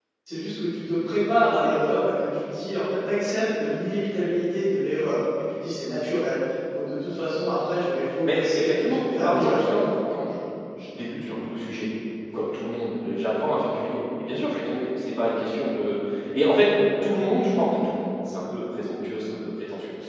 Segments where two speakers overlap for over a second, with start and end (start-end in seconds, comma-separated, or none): 8.2-9.8